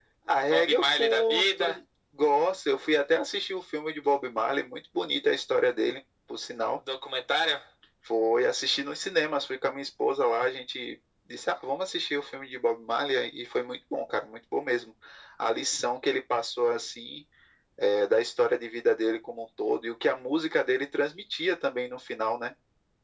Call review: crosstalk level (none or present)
present